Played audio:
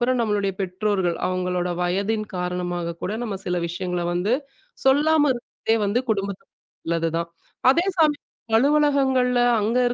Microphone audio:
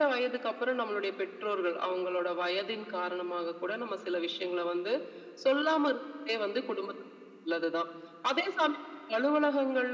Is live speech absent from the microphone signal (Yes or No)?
Yes